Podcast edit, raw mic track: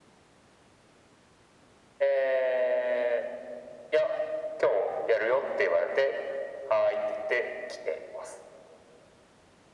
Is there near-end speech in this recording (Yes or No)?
No